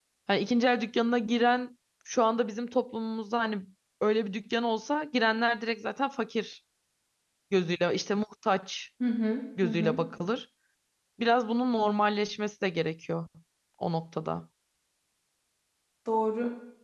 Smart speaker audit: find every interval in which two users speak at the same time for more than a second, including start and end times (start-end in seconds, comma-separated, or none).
none